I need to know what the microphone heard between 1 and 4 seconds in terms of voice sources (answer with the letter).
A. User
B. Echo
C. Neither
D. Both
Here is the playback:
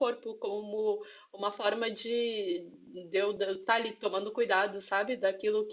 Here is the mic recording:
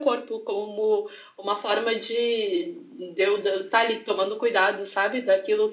B